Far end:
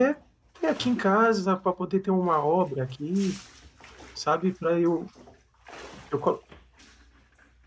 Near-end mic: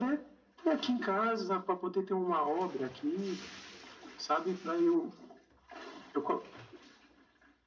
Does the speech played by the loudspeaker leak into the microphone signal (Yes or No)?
Yes